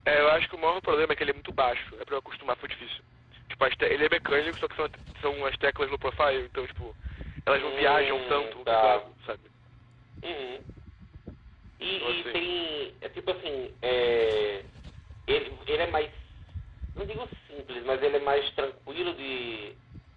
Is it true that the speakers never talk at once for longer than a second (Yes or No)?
No